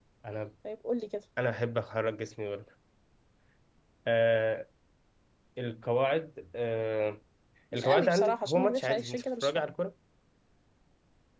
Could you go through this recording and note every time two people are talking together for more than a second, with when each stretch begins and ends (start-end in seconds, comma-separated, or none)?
7.7-9.7